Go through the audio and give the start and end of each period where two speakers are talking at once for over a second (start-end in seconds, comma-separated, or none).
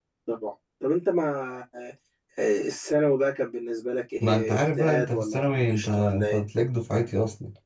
4.2-6.4